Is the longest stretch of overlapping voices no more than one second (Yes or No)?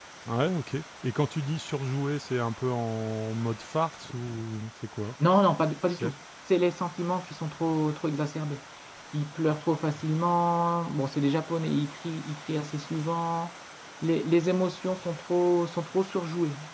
Yes